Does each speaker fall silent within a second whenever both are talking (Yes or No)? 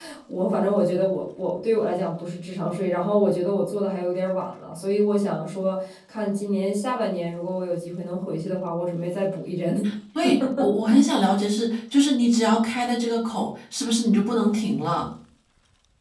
Yes